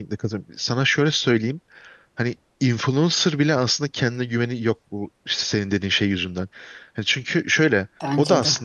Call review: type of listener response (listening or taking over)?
listening